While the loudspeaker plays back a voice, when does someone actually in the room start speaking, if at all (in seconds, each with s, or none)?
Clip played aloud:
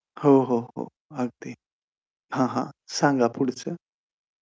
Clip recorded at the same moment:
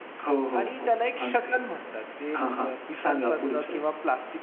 0.6 s